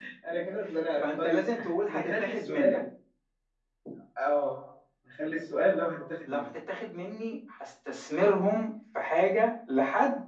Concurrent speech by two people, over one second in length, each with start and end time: 1.0-2.8

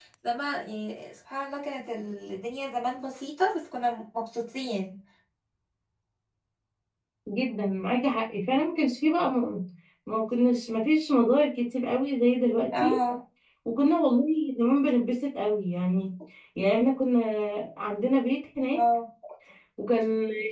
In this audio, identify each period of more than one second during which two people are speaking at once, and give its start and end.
none

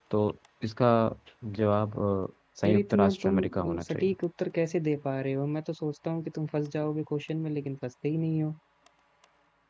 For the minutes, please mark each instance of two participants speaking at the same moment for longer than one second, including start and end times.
2.6-4.1

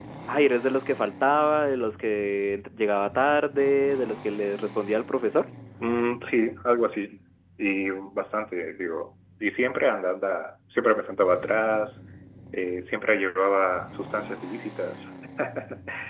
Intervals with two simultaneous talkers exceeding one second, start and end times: none

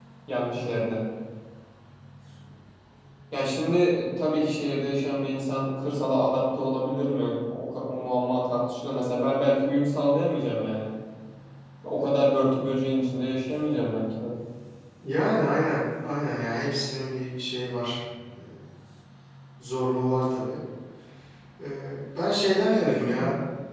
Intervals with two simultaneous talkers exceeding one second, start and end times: none

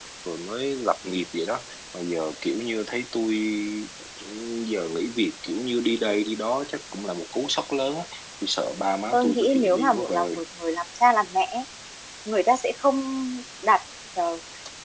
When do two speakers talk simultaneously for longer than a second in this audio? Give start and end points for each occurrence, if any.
9.1-10.4

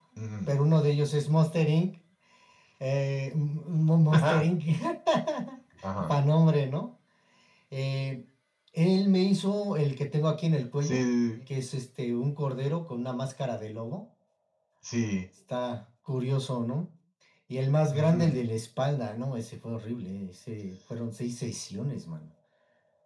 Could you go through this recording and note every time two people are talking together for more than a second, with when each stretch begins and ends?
none

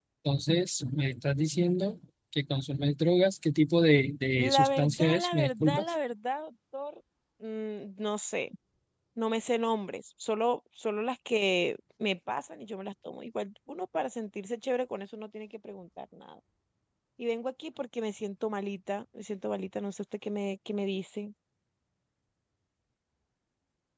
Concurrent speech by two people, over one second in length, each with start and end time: 4.4-5.8

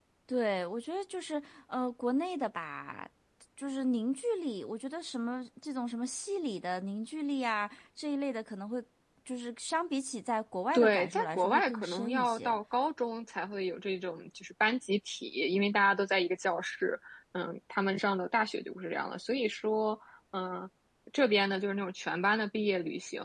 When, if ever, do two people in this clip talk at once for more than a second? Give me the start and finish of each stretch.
10.7-12.6

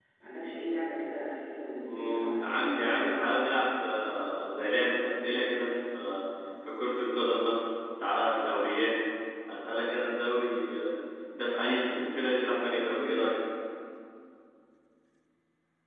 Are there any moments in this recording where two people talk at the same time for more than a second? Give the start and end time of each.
1.7-3.2

